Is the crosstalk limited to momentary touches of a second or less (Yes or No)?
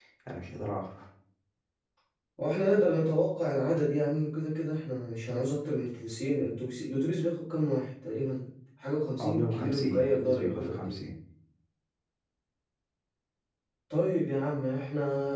No